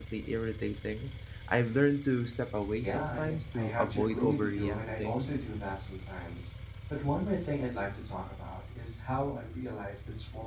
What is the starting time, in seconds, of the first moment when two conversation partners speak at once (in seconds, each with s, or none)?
2.8 s